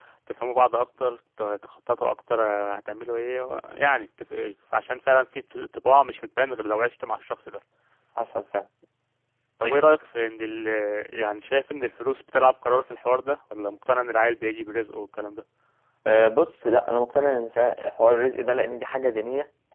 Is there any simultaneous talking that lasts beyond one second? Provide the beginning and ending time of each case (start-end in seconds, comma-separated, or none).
none